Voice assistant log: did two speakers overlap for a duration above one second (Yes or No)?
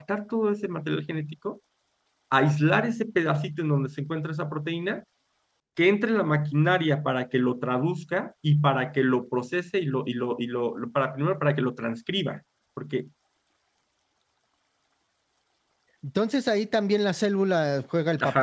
No